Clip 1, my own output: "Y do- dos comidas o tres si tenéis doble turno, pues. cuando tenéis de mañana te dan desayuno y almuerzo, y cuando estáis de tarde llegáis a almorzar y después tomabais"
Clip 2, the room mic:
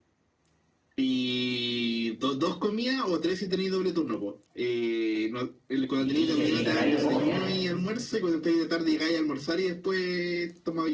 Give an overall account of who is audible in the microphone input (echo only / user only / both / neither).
both